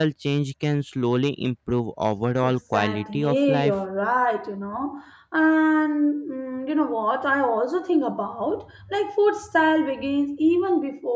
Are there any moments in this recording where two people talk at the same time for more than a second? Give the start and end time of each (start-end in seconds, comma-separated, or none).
2.4-3.8